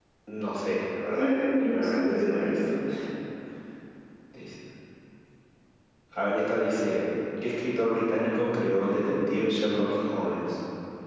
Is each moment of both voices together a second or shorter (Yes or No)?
No